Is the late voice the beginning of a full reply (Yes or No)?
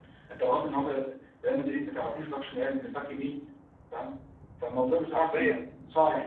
No